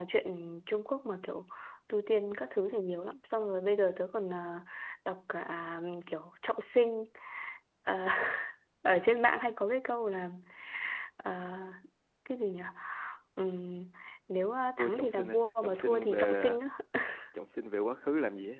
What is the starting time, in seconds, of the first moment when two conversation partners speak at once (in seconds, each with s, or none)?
14.8 s